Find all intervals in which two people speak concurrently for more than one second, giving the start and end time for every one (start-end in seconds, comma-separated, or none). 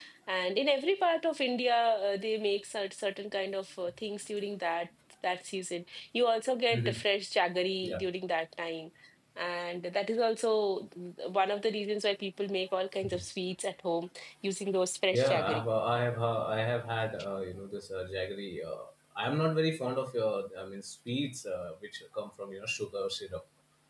none